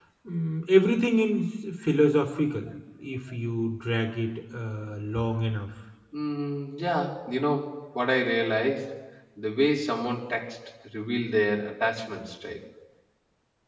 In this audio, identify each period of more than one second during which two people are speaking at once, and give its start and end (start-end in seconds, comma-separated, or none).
none